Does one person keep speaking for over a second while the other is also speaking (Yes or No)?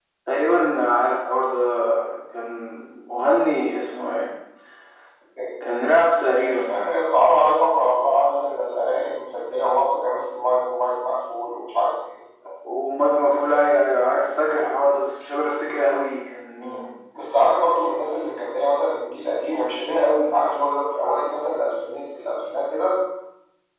No